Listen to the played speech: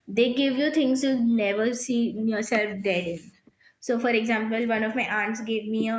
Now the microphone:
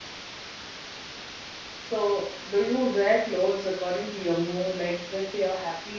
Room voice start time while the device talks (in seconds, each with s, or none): 1.8 s